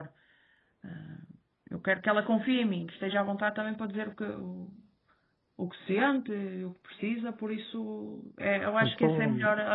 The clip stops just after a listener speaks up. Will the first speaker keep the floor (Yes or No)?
Yes